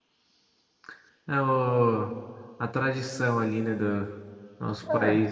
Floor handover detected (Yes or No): No